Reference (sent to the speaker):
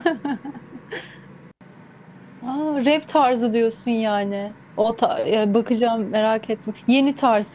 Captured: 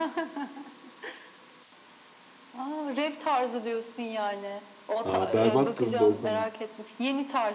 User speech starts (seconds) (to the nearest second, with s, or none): 5 s